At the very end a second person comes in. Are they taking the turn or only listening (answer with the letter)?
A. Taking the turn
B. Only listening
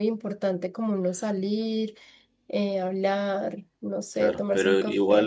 A